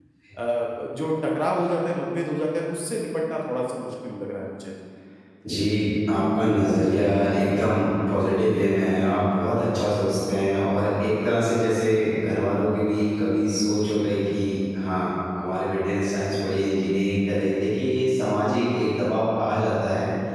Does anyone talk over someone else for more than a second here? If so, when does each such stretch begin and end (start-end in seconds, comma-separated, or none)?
none